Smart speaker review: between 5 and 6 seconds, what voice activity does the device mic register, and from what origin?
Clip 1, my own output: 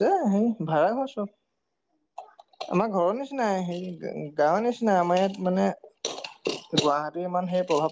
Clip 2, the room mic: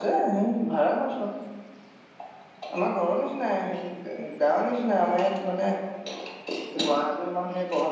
echo only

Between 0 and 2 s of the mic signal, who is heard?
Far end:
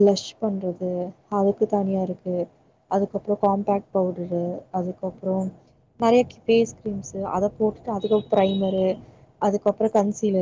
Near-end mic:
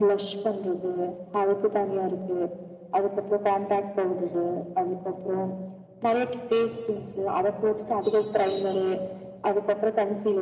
echo only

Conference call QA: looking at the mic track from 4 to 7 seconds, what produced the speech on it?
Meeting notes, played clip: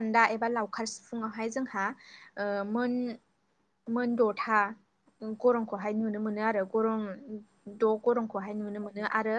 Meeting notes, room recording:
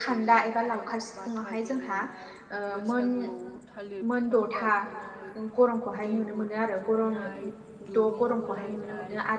both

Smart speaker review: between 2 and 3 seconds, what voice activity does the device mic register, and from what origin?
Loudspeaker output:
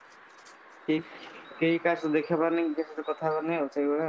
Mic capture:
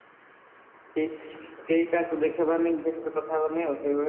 echo only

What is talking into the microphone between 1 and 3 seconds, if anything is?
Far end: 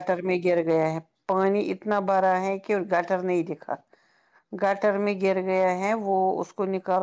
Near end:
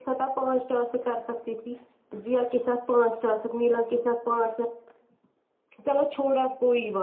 user only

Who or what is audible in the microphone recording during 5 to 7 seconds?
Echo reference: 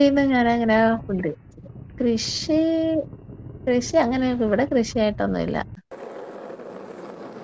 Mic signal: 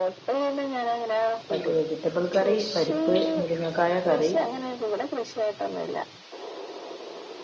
echo only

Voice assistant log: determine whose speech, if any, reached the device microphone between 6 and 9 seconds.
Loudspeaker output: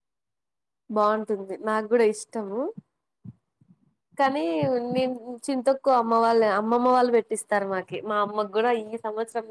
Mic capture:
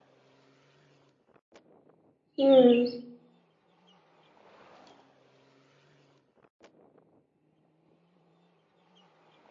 neither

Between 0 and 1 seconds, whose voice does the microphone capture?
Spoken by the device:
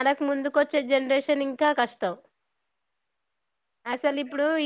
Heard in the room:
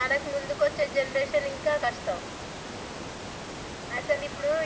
echo only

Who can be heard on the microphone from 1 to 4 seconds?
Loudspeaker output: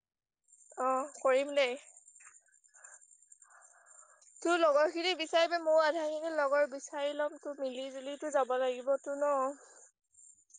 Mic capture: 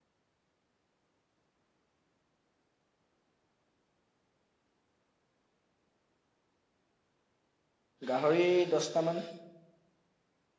neither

